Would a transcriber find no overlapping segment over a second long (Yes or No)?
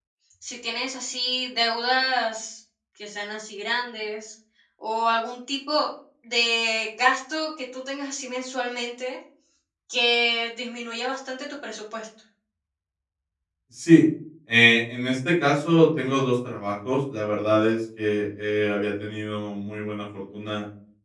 Yes